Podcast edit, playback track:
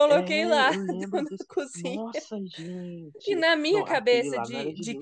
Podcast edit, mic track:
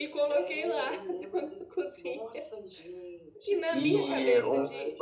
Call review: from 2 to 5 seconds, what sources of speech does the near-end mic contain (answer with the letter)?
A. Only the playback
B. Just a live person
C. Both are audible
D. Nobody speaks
C